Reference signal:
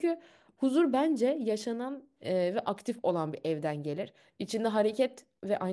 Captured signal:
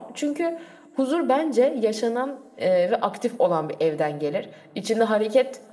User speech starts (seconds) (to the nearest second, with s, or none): none